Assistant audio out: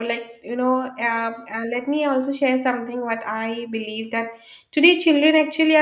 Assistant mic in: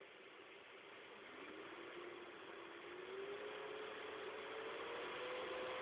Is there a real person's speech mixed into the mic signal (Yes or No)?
No